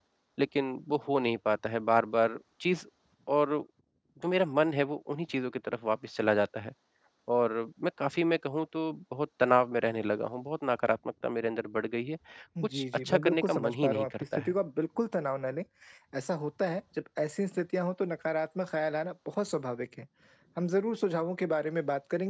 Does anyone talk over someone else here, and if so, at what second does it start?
12.7 s

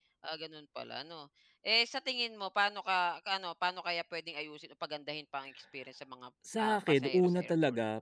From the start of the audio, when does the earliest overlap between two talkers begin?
6.5 s

